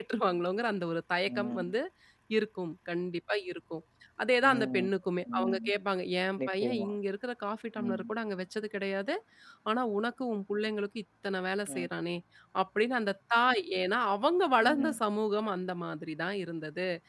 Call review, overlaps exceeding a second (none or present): none